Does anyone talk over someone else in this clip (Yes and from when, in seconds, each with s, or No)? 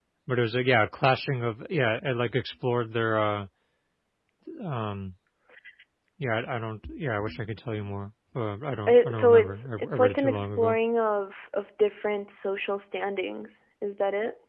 Yes, from 8.9 s